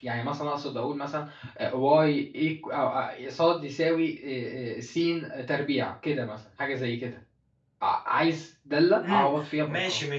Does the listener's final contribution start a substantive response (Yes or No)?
Yes